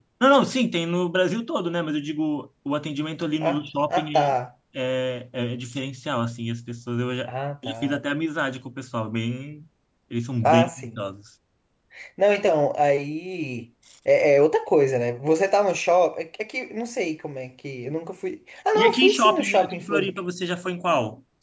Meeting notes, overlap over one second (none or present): present